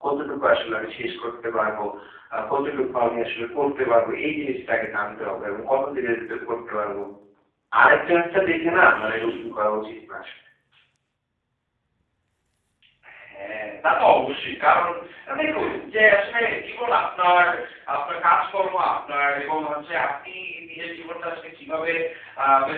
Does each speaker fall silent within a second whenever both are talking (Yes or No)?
Yes